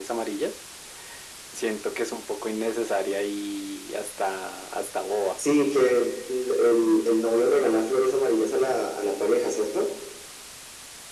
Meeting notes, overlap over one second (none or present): none